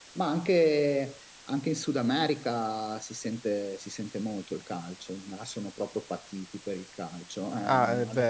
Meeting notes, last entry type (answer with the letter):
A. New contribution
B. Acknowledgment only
A